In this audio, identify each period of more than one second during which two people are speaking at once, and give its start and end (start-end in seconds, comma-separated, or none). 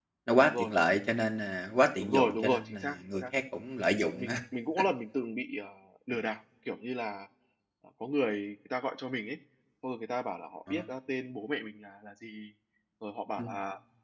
2.0-3.2